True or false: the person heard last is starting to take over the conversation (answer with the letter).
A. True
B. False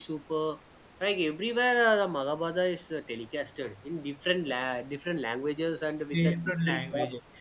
A